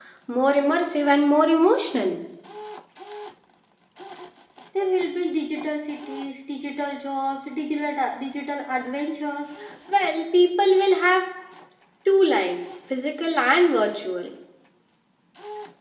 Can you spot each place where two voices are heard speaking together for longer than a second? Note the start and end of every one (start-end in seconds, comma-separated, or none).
none